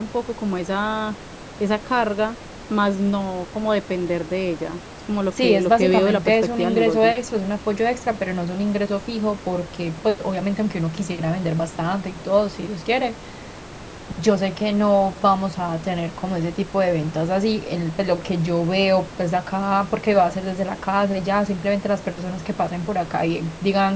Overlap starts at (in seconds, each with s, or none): 5.4 s